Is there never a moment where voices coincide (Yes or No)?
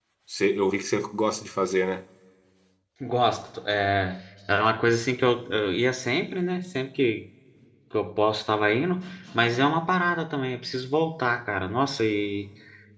Yes